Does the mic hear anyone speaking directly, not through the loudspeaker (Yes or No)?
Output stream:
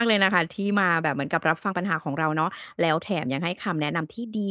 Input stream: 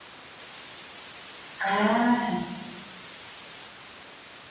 Yes